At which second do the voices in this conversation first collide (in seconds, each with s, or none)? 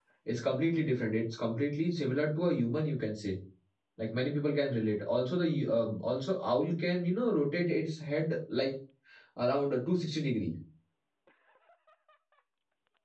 none